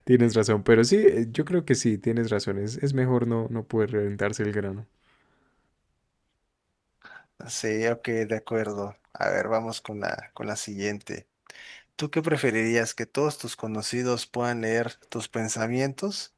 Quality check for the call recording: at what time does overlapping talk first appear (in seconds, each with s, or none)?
none